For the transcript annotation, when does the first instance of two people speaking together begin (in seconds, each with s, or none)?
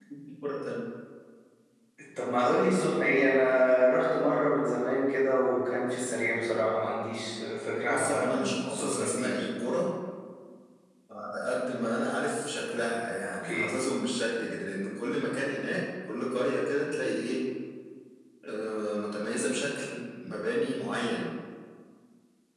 7.9 s